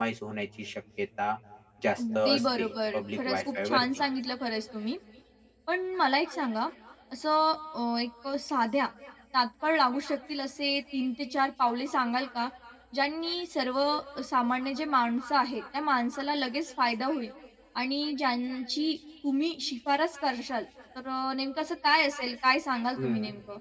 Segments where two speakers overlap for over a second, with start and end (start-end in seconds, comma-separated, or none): 2.0-4.0